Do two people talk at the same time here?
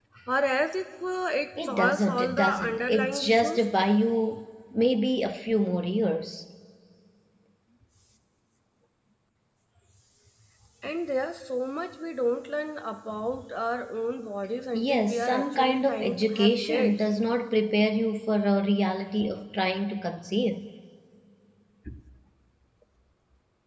Yes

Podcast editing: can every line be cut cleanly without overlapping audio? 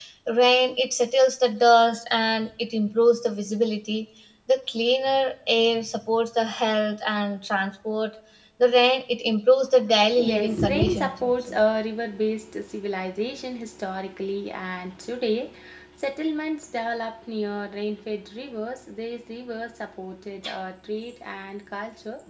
No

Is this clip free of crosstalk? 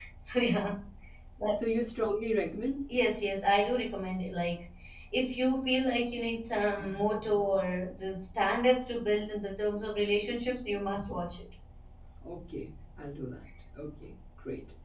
Yes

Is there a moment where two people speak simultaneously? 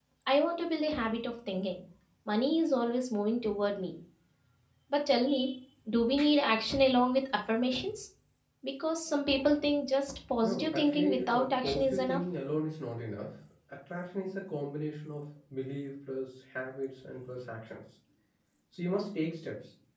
Yes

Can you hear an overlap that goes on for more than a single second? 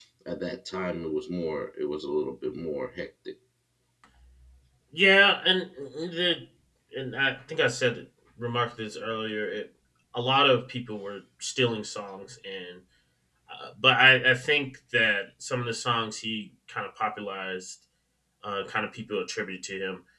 No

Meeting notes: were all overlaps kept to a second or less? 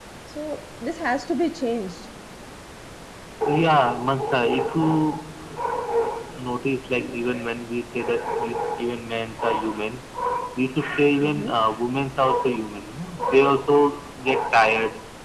Yes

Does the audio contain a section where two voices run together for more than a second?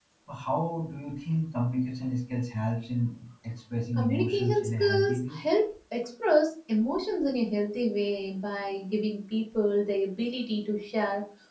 Yes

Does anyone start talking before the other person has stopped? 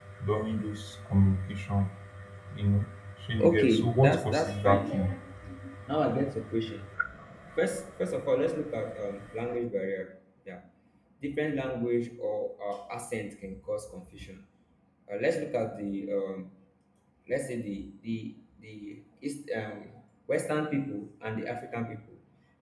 Yes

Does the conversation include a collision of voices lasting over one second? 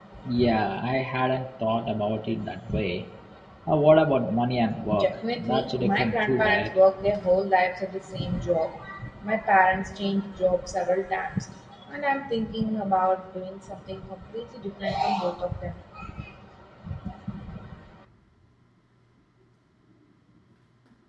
Yes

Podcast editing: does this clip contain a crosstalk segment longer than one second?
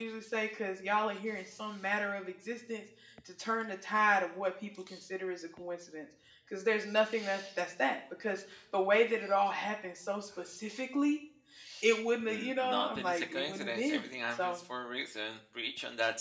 Yes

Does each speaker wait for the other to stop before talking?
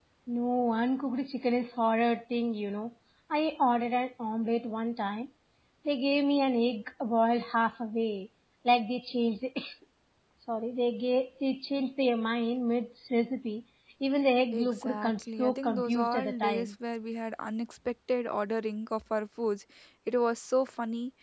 No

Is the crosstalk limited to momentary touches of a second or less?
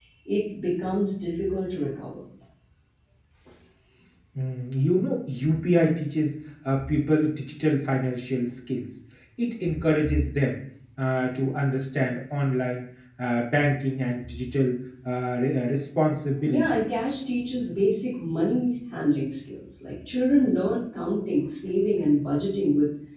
Yes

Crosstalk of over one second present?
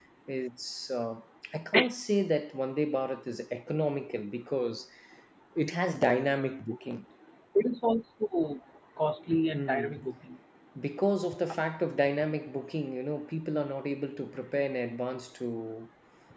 No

